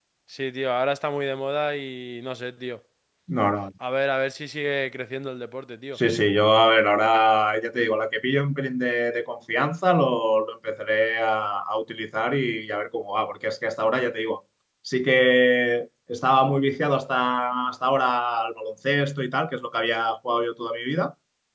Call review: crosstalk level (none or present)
none